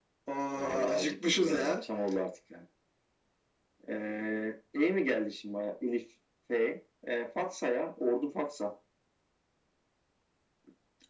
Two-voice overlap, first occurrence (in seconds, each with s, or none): 0.6 s